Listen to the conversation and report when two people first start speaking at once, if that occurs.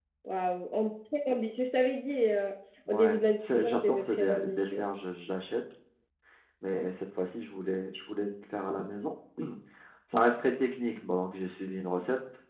2.9 s

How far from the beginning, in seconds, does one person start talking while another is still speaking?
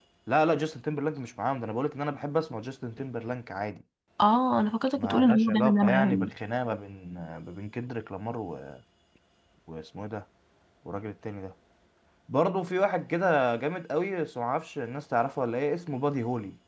5.0 s

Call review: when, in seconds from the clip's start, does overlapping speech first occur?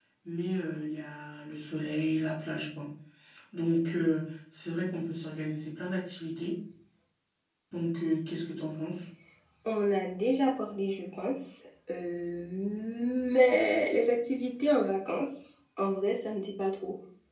none

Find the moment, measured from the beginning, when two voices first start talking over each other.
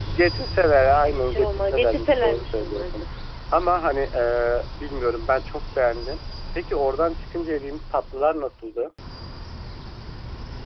1.0 s

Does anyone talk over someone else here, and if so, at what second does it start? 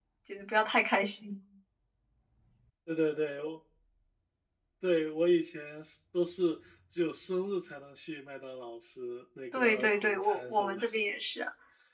9.5 s

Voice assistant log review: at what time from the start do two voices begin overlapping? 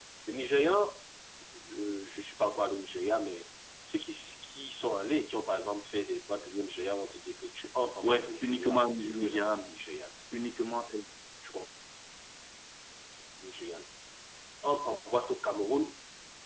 8.0 s

